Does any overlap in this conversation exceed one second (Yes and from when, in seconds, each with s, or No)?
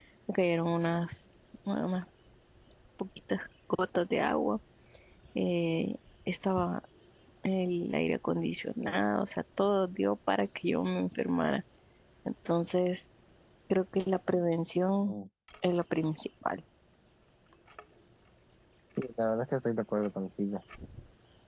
No